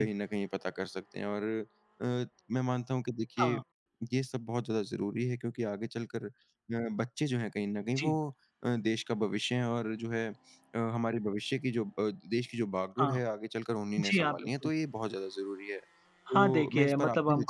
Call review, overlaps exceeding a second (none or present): present